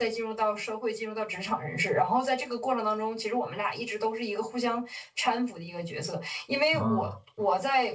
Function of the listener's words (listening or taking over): listening